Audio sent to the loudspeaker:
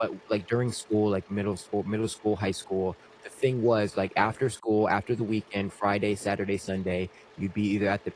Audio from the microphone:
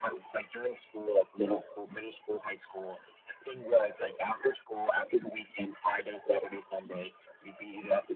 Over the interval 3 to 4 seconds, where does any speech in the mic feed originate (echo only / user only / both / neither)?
echo only